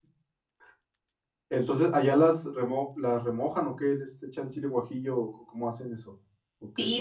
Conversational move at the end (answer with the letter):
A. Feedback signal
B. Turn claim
B